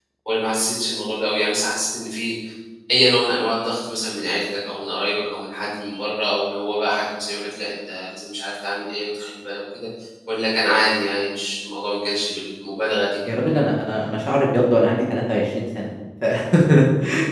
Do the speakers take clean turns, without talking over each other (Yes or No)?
Yes